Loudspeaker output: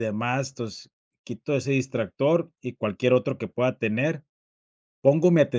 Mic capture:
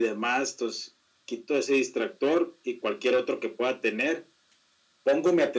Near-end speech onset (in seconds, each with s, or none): none